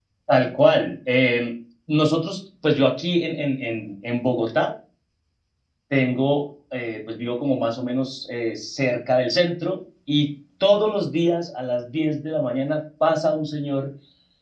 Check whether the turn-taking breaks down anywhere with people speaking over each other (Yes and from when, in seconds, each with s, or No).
No